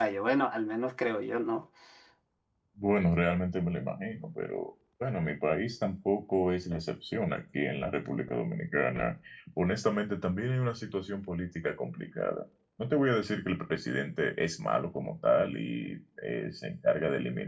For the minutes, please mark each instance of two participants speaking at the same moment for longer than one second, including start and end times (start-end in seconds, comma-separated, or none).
none